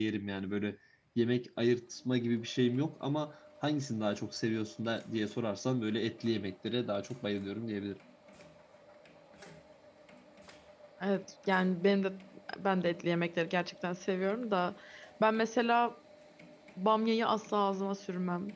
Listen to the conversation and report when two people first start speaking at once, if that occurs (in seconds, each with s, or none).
none